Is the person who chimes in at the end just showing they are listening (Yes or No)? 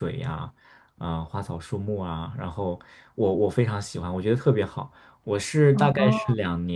Yes